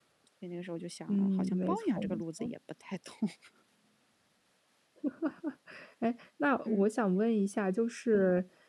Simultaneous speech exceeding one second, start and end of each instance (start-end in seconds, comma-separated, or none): 1.1-2.5